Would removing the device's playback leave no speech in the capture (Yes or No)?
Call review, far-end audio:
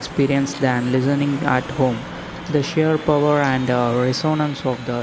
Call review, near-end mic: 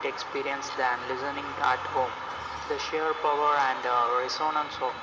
Yes